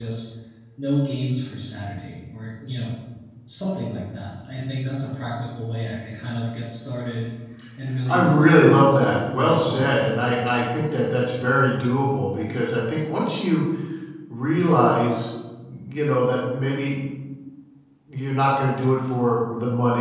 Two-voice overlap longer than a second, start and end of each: 8.1-10.1

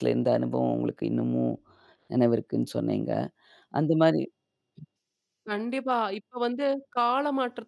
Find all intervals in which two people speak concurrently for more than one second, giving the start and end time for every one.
none

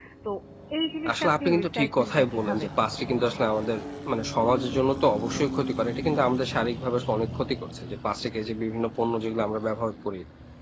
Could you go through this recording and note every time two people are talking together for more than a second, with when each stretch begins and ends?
1.1-3.2

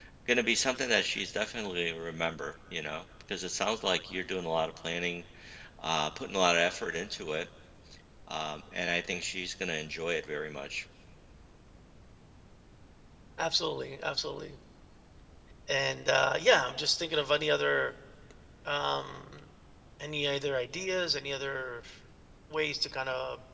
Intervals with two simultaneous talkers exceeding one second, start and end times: none

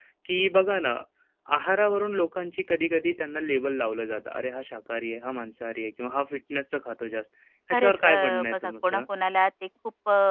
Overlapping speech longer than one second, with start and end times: 7.7-9.0

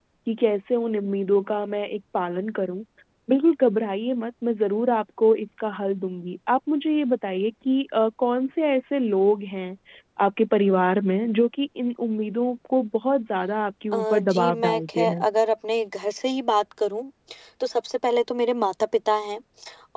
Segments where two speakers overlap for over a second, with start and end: 13.9-15.2

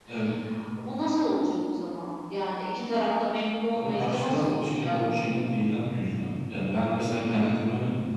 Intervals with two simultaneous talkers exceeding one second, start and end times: 3.7-5.0

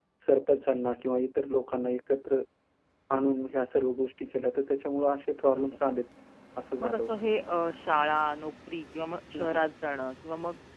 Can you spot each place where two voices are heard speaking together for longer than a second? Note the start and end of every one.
none

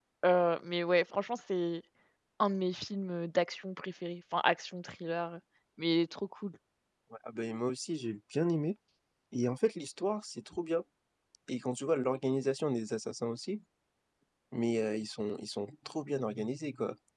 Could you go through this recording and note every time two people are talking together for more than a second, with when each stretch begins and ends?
none

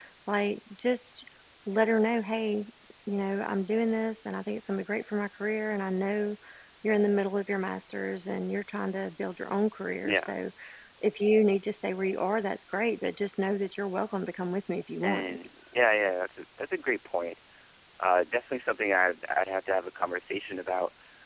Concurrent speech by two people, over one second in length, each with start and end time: none

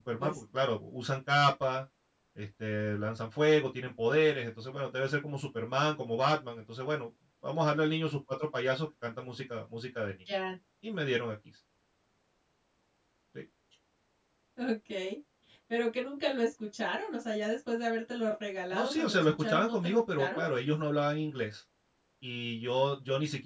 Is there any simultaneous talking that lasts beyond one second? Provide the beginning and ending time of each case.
18.7-20.4

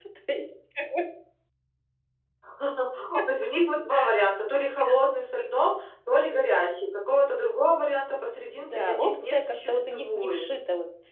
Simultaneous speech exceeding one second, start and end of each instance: 8.6-10.5

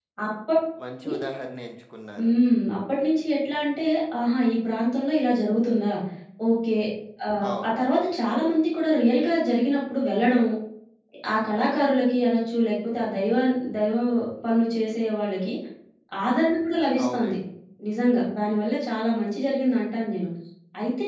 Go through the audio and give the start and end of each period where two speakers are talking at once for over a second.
none

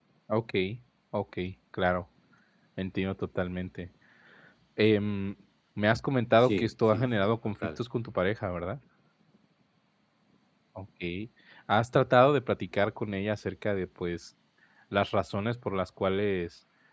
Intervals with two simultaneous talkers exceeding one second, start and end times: 6.4-7.8

